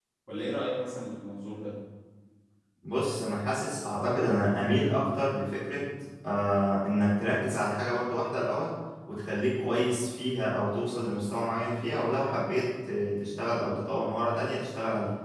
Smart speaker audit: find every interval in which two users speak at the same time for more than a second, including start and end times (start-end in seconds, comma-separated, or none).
none